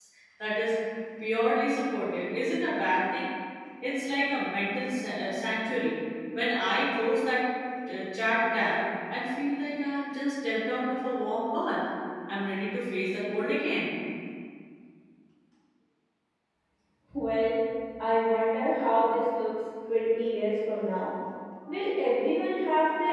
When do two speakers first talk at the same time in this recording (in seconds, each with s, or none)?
none